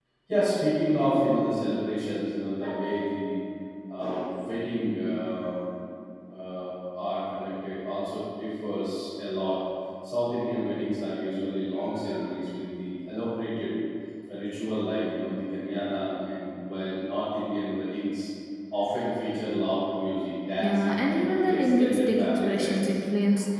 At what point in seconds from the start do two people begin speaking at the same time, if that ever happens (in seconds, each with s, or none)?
20.6 s